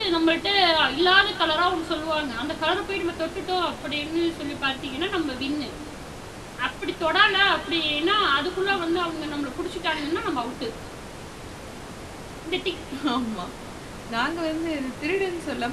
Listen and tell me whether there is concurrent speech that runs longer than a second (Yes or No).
No